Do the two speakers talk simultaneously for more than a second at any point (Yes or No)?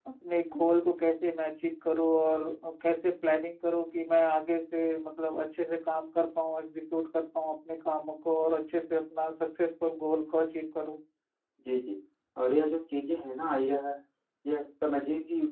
No